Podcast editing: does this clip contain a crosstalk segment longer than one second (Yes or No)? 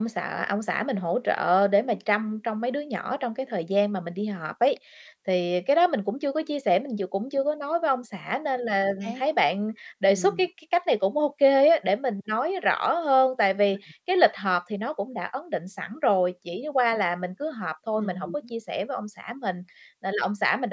No